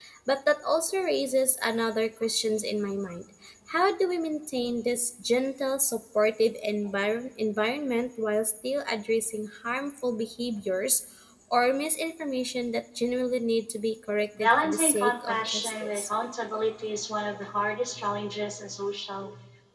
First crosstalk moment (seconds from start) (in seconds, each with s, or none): 14.3 s